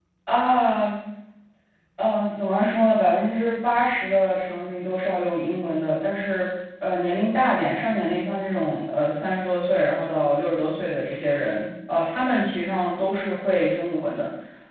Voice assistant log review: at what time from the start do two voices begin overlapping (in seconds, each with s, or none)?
none